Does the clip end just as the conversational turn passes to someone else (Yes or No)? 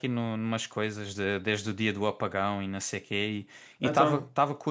No